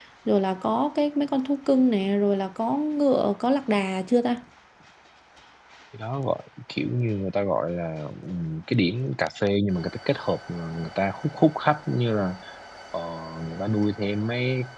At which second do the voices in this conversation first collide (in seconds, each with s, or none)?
none